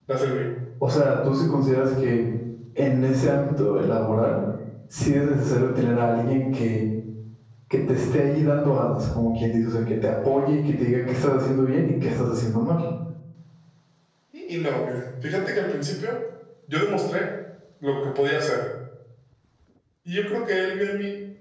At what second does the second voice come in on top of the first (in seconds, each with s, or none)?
none